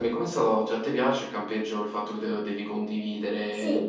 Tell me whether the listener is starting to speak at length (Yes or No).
Yes